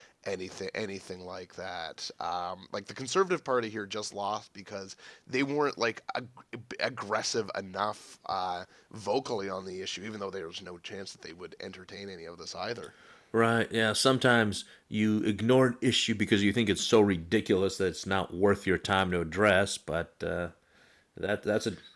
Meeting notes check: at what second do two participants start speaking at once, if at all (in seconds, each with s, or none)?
none